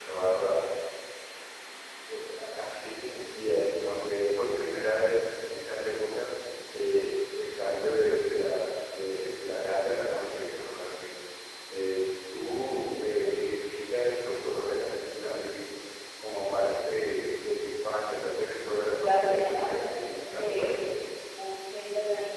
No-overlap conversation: No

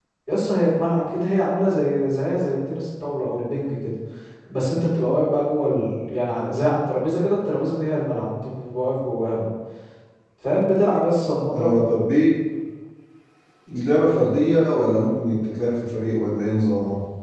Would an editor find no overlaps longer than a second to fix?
Yes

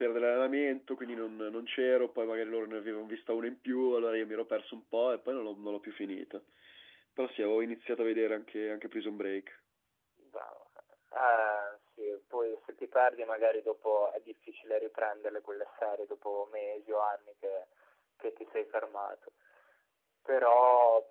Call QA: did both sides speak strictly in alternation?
Yes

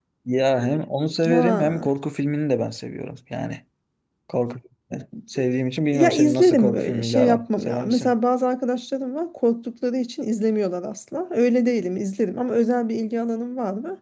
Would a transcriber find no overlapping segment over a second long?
No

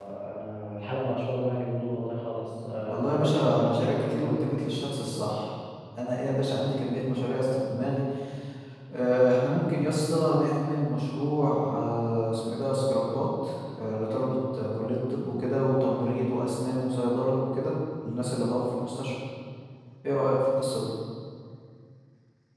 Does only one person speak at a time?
No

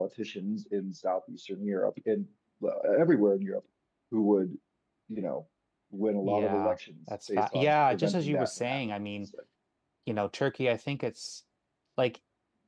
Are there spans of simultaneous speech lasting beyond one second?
Yes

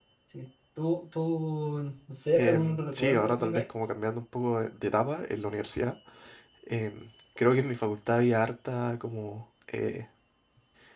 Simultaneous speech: Yes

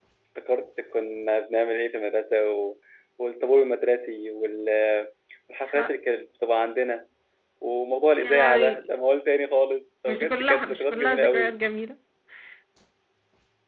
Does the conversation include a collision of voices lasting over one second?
Yes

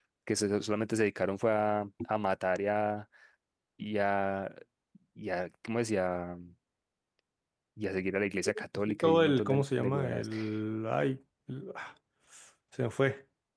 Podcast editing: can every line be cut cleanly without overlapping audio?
No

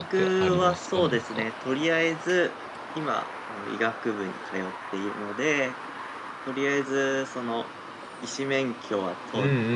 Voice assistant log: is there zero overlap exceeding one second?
No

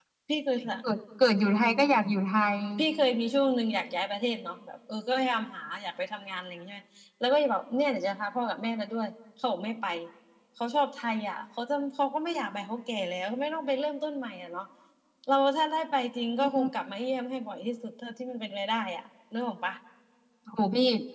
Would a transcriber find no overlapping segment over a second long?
Yes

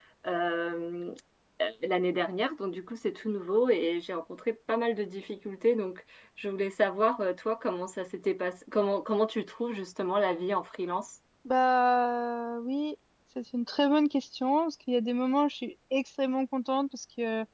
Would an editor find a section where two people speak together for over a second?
No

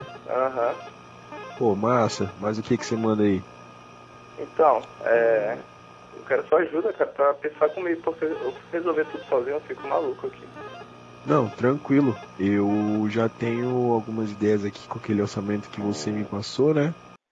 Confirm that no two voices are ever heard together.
Yes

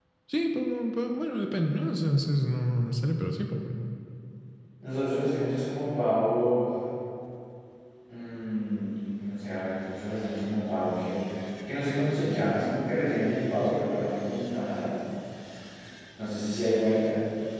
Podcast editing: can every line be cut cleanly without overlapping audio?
Yes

